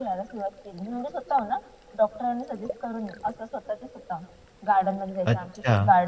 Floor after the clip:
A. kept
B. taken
A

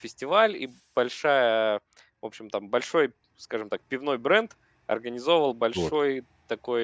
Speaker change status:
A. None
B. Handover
A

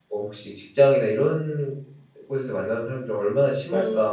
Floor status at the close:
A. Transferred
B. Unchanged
A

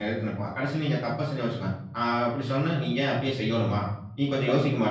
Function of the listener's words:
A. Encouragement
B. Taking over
A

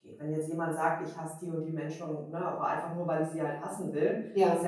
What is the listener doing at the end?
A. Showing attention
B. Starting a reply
A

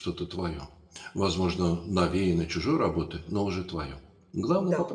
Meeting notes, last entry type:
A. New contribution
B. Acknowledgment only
A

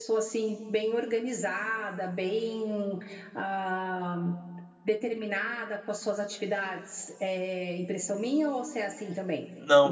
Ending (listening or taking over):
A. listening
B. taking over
B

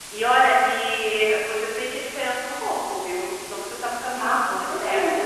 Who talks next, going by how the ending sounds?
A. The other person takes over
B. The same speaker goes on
A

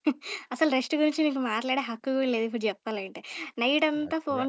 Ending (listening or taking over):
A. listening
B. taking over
A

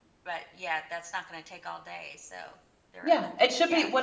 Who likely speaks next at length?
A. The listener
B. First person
A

